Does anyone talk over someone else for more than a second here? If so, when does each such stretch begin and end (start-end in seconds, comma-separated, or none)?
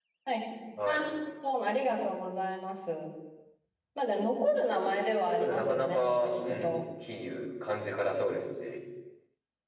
5.3-6.8